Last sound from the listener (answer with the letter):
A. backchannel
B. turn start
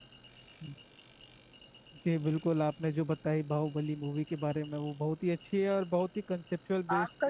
B